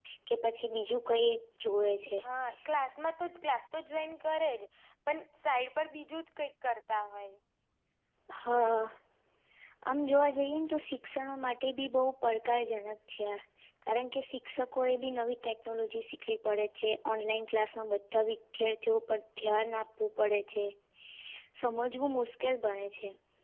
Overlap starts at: none

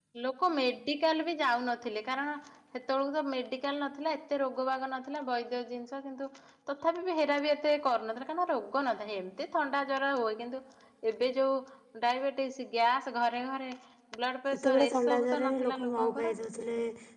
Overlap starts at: 14.5 s

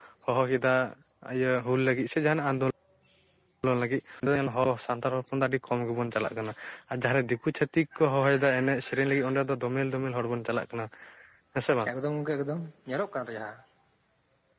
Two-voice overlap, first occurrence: none

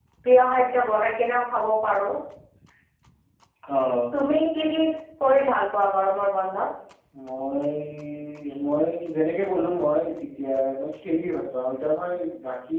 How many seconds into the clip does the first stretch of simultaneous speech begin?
none

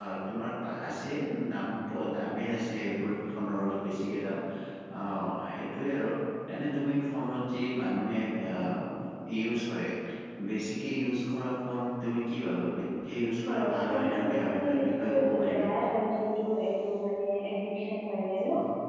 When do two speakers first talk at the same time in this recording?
13.4 s

